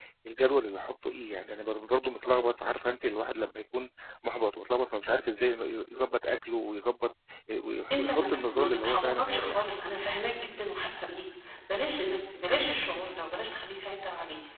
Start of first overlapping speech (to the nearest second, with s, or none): 8 s